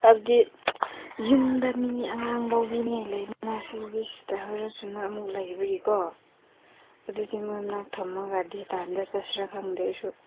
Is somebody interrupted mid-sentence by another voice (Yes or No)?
No